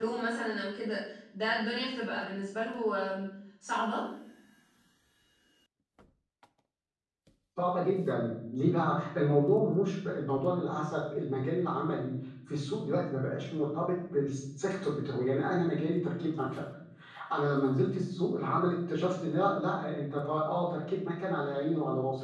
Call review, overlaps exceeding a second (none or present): none